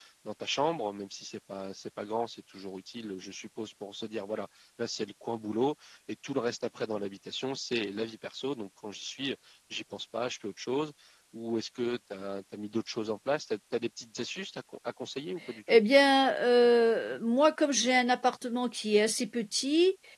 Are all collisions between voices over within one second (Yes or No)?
Yes